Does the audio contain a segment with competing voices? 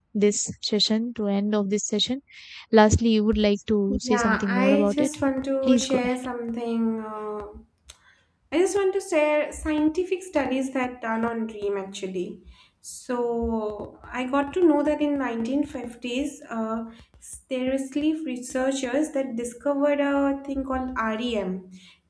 Yes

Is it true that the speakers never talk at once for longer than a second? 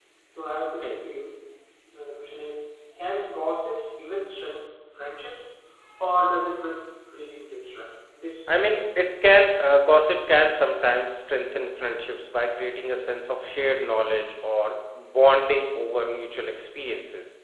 Yes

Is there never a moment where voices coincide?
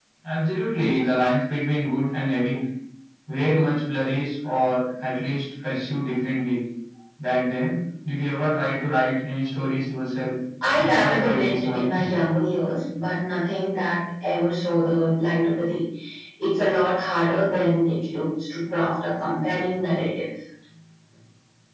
No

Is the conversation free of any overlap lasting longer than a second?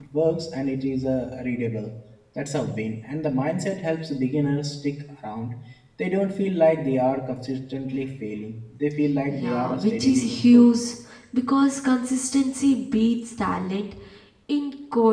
No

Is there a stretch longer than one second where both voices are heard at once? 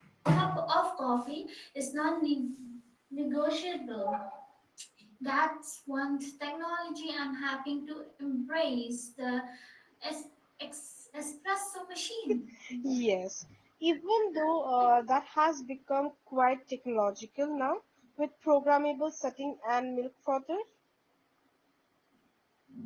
No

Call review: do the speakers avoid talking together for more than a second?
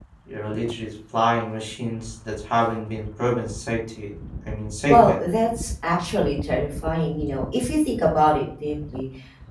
Yes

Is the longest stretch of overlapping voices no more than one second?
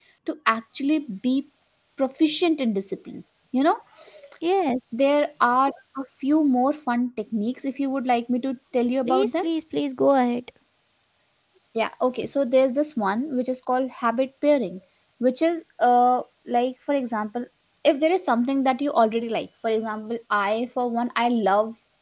Yes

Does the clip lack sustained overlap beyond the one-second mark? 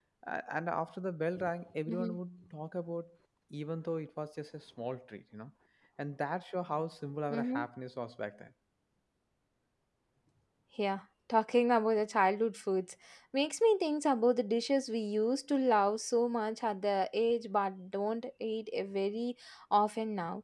Yes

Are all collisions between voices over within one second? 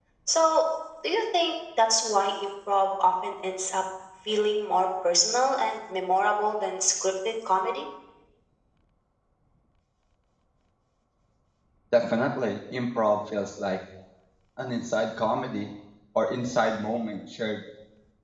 Yes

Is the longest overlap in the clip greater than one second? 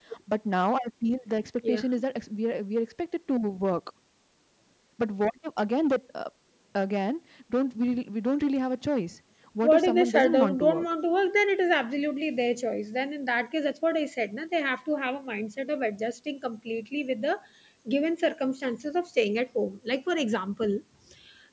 Yes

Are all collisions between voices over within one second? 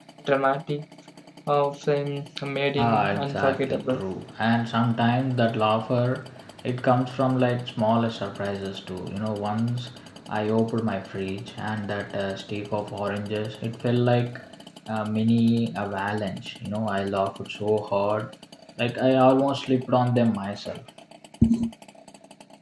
No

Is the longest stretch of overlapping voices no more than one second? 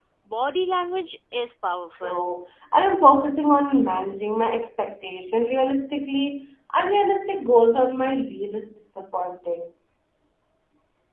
Yes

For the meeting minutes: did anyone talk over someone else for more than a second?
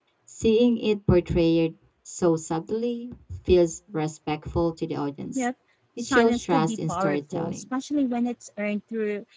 Yes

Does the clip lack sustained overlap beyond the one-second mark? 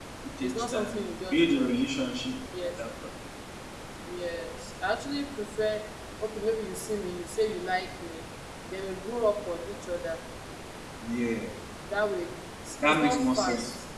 No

